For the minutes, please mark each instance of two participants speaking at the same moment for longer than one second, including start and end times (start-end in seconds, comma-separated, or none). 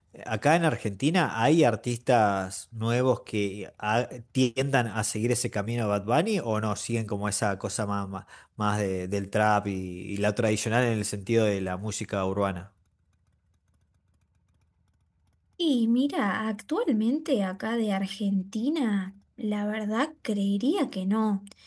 none